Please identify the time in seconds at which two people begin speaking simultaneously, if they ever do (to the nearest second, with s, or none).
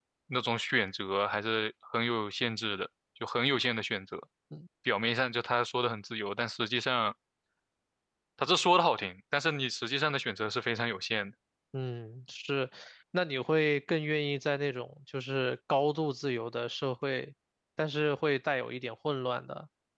none